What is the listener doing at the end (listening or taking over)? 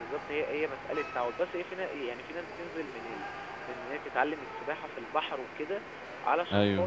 listening